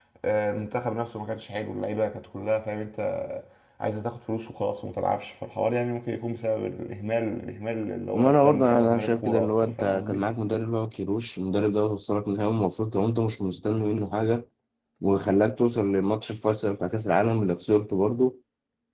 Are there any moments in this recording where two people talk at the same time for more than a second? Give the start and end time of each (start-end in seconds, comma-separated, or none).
8.1-10.2